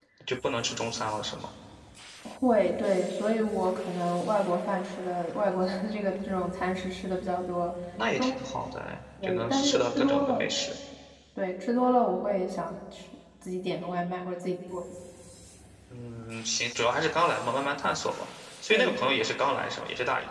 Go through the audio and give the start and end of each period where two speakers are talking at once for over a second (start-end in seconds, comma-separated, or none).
9.2-10.5